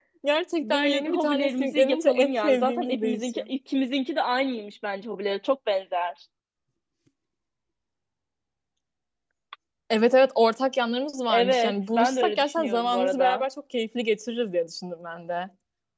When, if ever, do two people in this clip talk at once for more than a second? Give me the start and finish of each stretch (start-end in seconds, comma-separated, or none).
0.6-3.4, 11.3-13.4